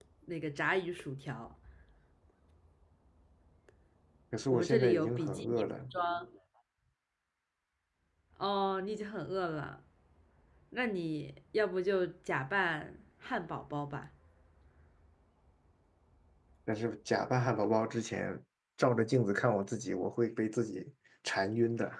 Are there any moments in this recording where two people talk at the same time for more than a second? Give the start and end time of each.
4.5-5.9

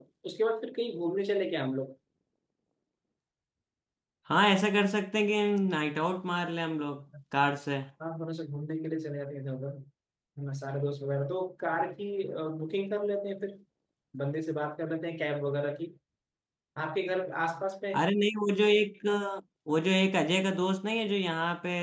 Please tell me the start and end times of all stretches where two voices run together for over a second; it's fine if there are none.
none

